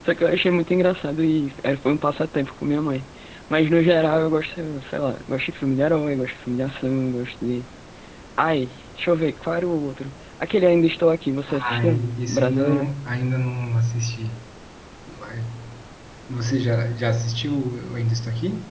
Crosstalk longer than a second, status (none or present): present